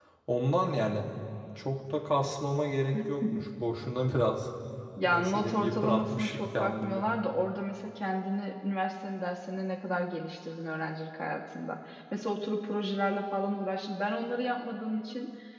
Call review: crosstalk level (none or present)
present